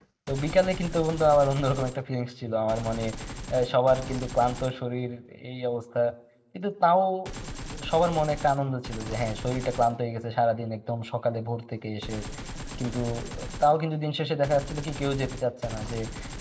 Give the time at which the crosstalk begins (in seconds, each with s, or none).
none